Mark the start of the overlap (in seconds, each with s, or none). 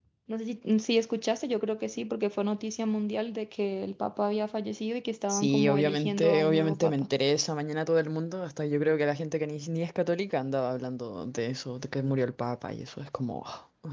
5.3 s